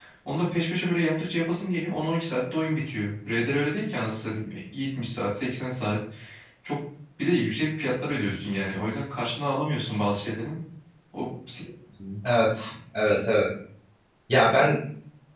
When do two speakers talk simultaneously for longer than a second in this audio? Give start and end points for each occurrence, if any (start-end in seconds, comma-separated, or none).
none